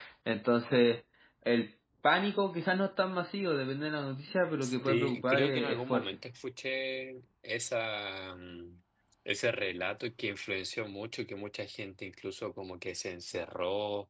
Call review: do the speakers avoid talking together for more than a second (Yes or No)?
No